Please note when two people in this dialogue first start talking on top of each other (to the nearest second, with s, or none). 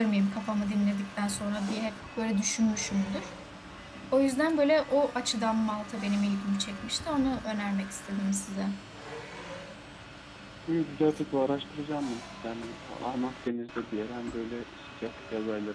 none